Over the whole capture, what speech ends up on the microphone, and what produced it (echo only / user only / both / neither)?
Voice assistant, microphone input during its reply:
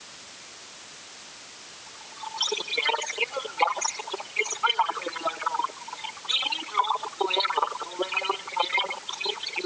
echo only